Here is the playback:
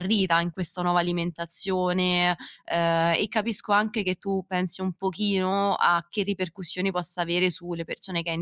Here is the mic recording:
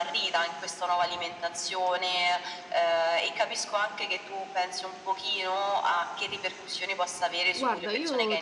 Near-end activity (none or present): present